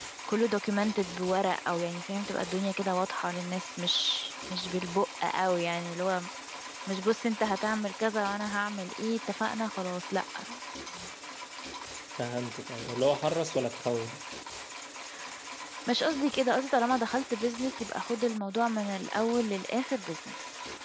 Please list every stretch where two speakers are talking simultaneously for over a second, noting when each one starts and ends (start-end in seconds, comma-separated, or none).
none